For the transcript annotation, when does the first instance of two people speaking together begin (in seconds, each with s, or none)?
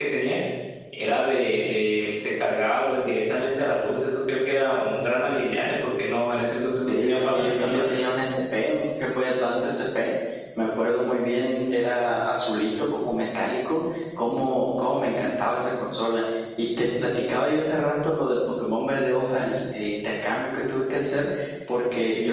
6.7 s